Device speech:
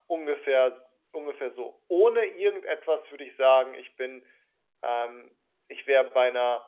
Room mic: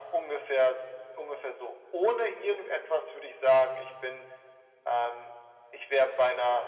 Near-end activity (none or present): none